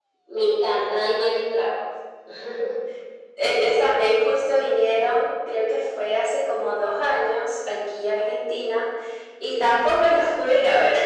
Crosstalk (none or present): none